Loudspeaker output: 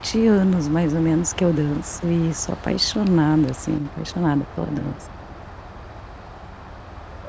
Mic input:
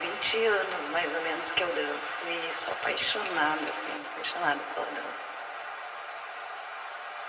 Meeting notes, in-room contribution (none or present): none